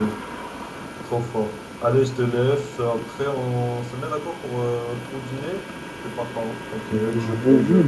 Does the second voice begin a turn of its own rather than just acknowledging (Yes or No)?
Yes